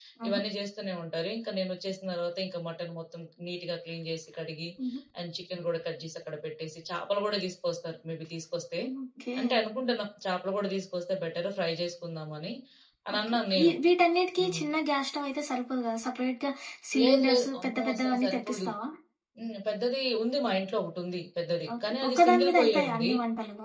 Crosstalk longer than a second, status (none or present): present